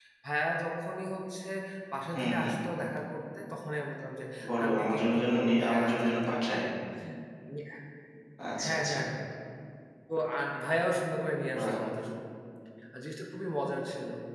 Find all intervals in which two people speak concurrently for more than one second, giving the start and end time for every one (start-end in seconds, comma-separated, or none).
4.6-6.6